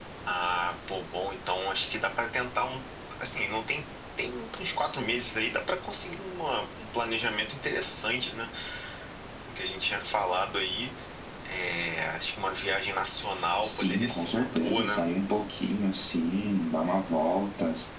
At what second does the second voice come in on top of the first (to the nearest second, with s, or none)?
14 s